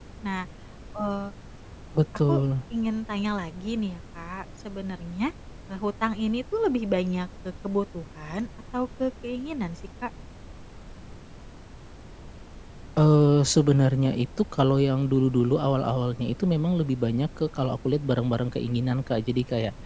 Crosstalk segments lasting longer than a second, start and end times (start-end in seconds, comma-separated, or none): none